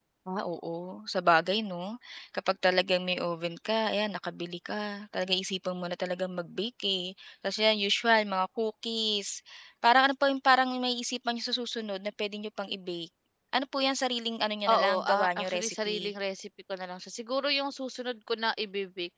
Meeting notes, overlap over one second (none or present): present